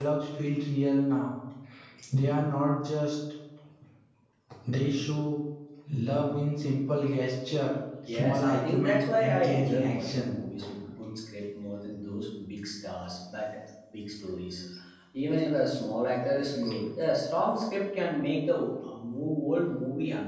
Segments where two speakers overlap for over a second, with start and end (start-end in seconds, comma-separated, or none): 8.1-10.3